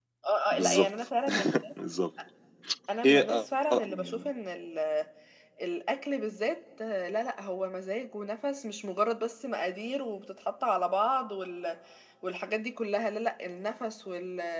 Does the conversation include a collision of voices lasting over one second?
Yes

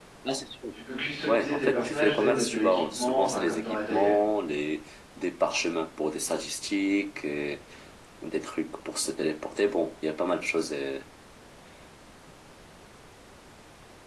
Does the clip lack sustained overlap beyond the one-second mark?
No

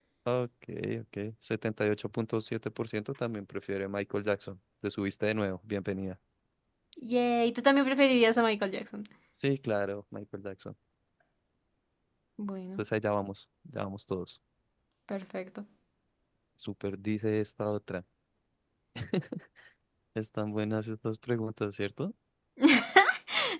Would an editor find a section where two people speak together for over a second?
No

